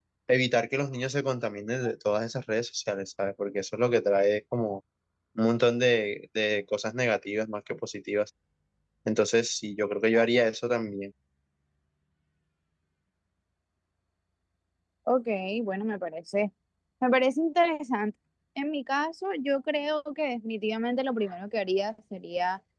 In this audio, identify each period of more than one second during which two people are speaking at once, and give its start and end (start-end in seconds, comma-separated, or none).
none